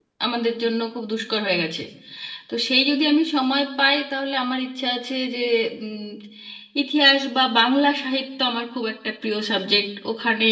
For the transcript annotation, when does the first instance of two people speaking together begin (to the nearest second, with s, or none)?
none